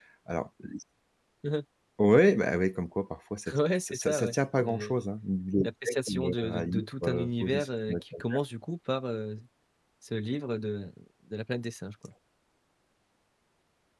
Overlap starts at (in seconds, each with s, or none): 3.5 s